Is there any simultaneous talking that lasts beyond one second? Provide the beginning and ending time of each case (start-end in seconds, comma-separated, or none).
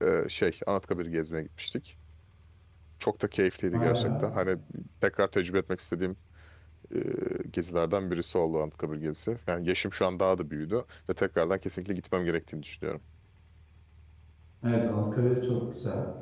none